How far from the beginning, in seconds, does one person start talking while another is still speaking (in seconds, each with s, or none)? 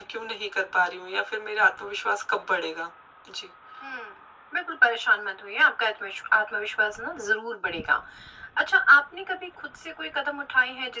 none